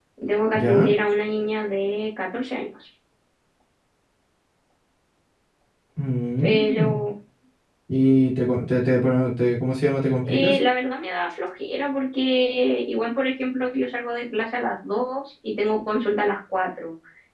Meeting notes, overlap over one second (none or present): none